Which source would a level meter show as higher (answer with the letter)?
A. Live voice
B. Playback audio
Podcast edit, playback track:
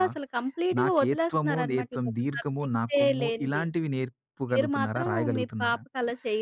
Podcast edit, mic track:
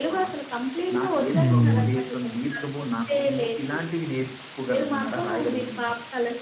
A